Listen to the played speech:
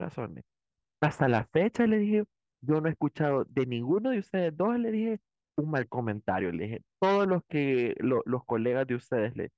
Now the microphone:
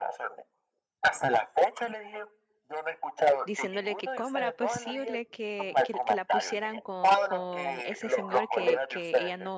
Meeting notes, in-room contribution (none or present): present